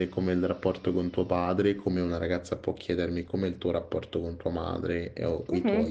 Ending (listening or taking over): taking over